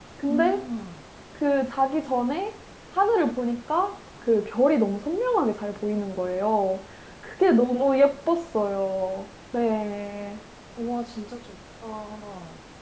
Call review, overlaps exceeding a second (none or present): none